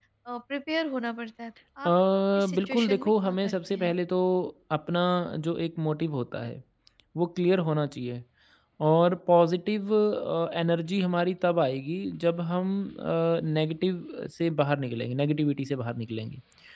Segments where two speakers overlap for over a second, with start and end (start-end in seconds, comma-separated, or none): 2.6-3.9